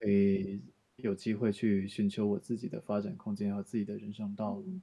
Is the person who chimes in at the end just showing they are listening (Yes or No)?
No